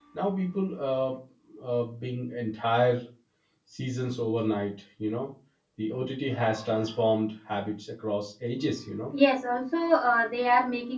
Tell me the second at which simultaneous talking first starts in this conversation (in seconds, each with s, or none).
none